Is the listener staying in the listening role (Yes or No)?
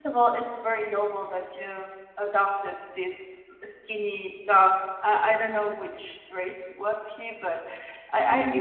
Yes